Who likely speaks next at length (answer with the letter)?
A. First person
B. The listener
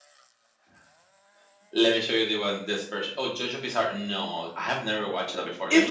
B